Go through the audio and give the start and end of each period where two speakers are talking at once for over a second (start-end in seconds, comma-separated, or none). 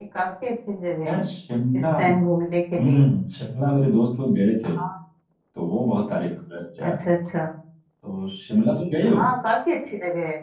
none